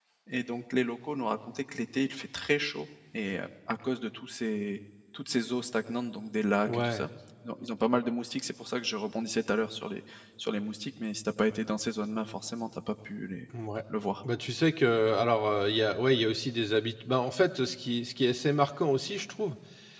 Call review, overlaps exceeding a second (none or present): none